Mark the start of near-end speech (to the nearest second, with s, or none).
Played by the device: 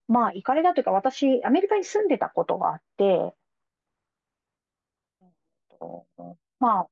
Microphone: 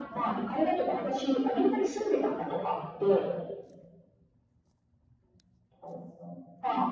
none